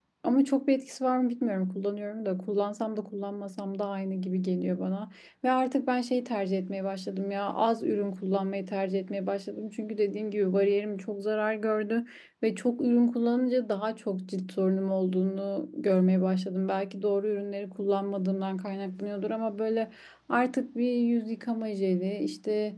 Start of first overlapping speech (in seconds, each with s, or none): none